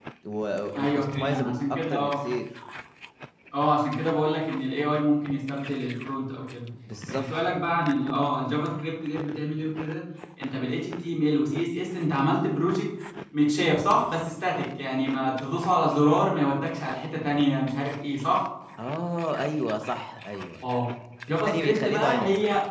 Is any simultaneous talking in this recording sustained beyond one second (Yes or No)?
Yes